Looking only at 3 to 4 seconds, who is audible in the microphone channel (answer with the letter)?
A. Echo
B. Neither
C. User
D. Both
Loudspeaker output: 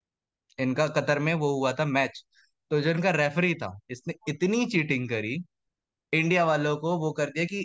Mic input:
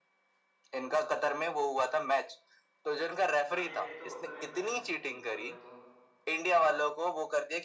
D